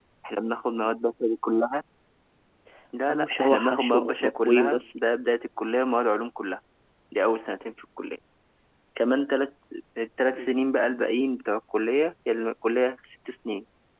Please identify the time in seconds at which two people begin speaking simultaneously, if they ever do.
3.1 s

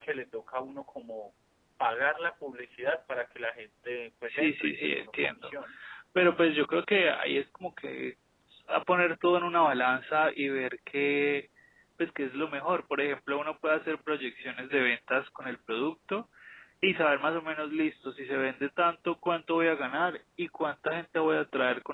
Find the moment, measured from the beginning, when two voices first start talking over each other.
4.3 s

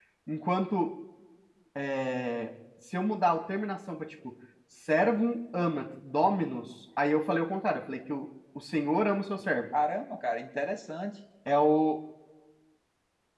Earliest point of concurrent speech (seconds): none

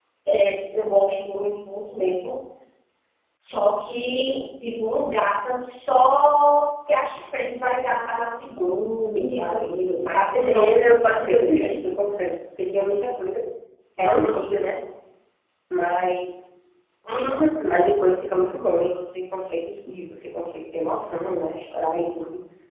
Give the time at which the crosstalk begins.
9.2 s

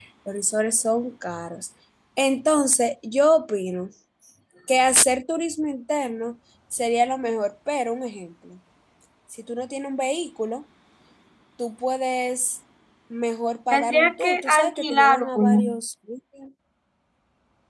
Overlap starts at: 13.7 s

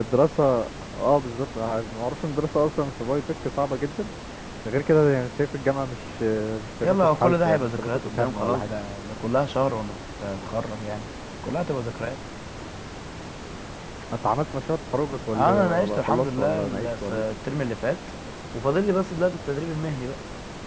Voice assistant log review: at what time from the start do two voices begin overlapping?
6.8 s

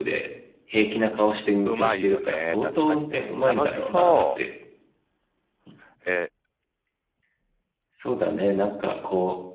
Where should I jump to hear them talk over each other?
1.6 s

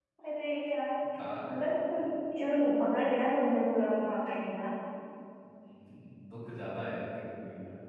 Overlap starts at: none

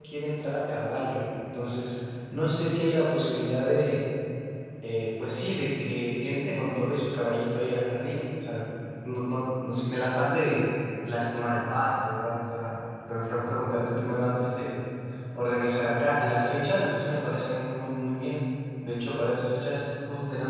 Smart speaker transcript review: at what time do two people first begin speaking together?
none

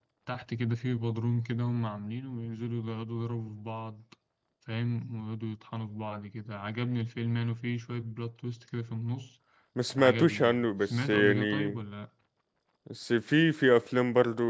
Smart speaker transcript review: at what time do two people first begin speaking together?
10.0 s

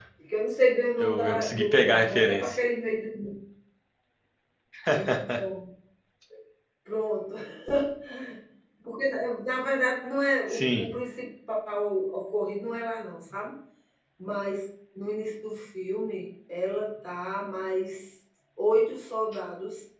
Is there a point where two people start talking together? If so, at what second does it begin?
1.0 s

